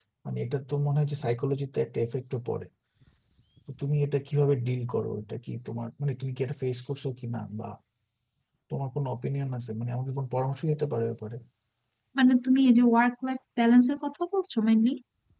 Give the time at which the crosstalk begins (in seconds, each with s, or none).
none